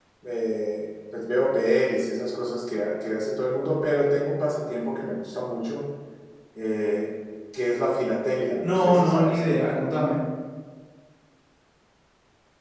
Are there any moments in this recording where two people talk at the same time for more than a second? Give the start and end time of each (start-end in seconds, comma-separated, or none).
8.6-9.9